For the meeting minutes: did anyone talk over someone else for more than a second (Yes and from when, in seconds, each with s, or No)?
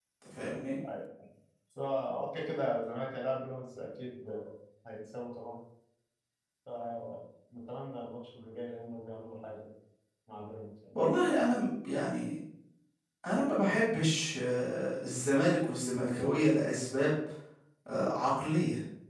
No